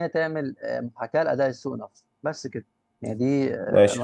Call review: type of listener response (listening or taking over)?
taking over